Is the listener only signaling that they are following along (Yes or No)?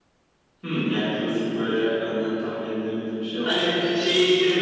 No